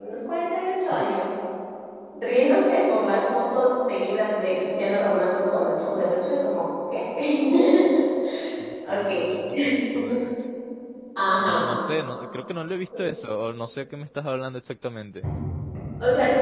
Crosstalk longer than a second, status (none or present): none